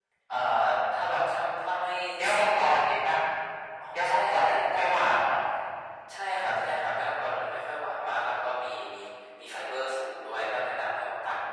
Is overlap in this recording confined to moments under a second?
No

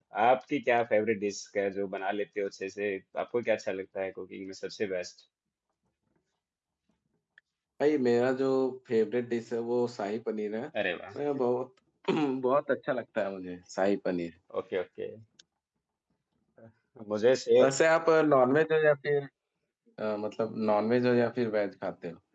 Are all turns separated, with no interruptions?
Yes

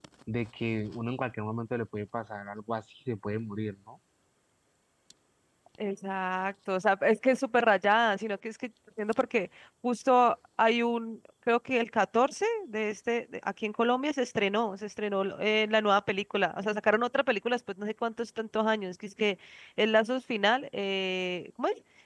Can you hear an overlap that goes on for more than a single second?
No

